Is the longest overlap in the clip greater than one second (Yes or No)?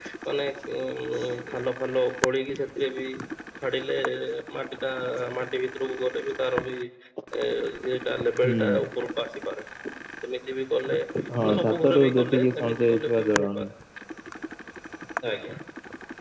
Yes